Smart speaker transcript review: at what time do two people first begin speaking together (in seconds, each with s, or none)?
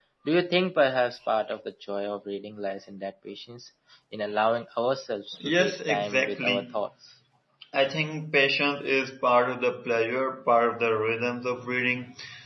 5.4 s